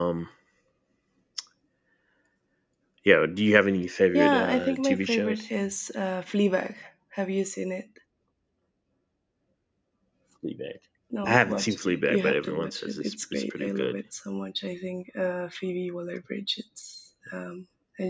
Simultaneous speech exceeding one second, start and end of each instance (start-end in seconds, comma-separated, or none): 4.1-5.5, 11.3-14.0